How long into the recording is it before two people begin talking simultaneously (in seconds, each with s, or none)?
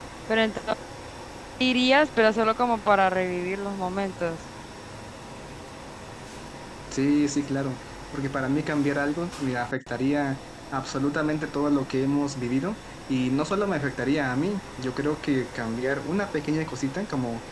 none